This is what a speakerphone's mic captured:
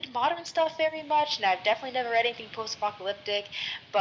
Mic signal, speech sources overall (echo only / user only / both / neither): echo only